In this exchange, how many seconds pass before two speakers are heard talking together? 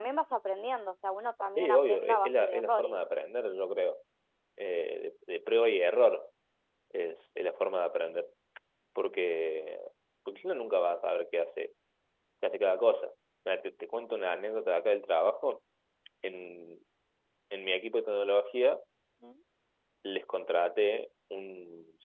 1.6 s

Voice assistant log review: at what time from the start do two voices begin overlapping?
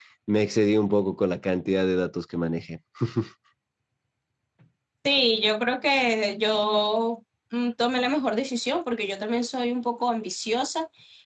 none

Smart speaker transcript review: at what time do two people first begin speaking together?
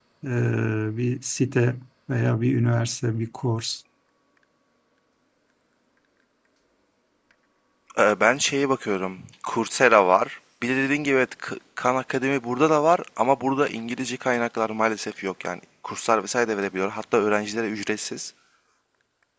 none

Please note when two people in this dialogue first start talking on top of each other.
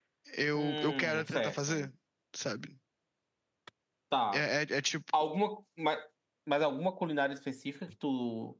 0.5 s

